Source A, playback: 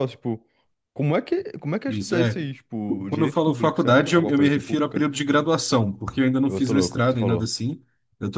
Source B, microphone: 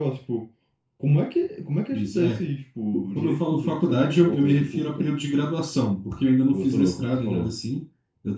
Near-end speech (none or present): none